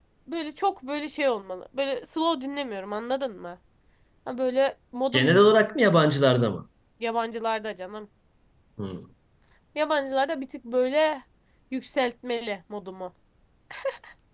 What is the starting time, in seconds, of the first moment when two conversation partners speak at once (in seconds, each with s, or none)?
none